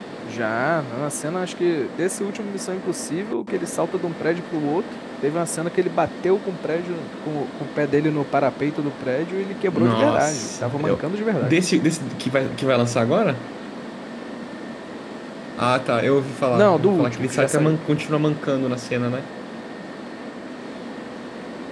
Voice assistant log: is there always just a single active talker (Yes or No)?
No